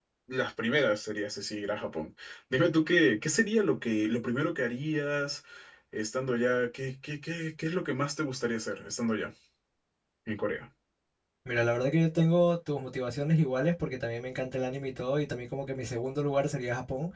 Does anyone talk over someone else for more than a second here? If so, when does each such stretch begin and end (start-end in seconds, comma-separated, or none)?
none